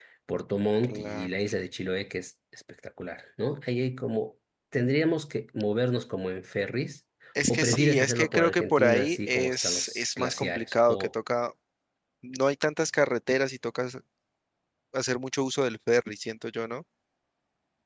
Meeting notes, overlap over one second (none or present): present